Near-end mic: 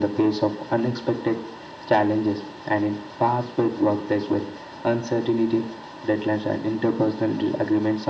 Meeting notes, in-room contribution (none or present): none